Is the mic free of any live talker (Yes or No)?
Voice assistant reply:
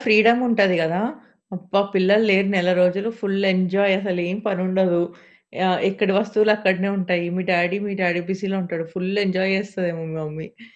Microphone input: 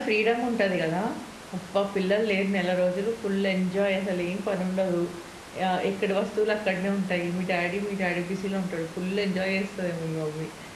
Yes